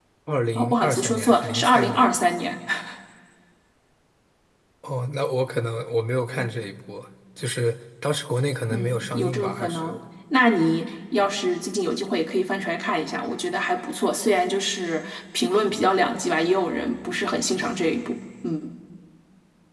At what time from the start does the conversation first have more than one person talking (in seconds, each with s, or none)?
0.6 s